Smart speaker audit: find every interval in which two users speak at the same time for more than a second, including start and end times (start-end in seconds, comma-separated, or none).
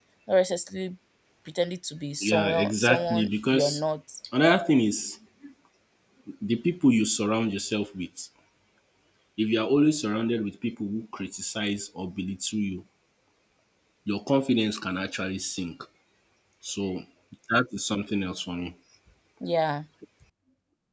2.2-3.8